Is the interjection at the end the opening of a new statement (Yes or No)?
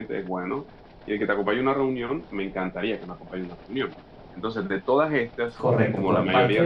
Yes